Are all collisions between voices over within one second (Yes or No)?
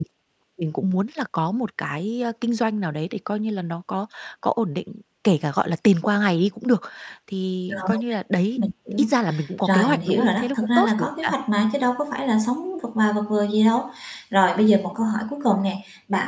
No